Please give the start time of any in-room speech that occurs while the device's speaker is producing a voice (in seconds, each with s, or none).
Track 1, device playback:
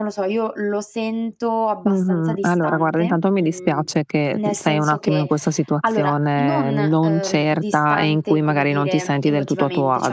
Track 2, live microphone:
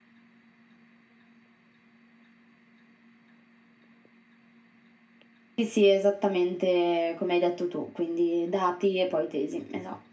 5.5 s